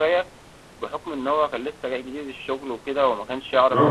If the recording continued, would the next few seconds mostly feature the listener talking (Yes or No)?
Yes